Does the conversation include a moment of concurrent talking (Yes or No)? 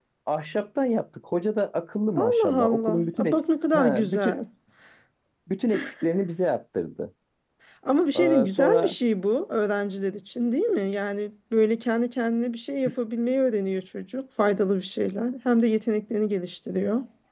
Yes